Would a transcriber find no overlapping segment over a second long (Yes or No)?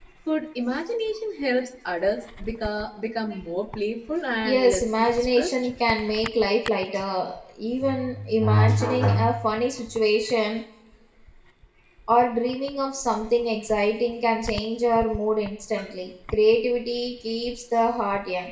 No